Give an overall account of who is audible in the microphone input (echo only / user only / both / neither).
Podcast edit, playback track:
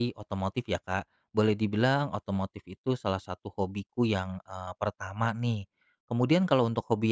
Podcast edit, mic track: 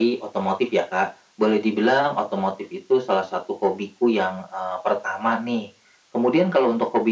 echo only